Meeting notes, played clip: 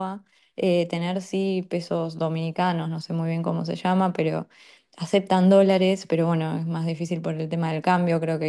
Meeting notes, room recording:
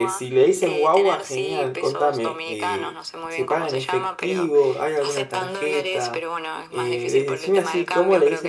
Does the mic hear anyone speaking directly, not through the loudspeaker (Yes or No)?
Yes